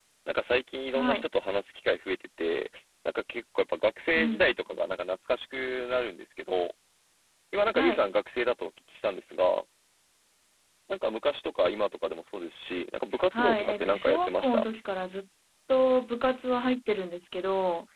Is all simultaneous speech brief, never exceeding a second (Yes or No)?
No